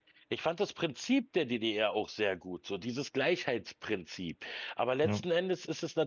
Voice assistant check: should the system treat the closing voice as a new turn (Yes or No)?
No